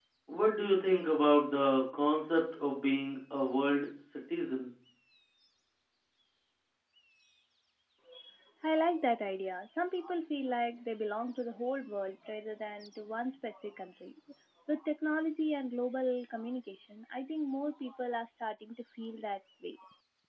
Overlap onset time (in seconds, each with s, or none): none